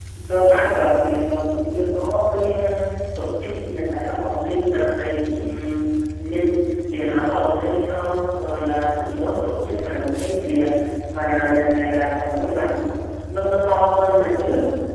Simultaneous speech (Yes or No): No